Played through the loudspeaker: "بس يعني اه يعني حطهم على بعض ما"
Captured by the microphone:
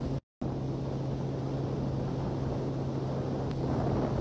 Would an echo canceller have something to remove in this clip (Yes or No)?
No